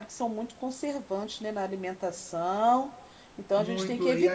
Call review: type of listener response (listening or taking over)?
taking over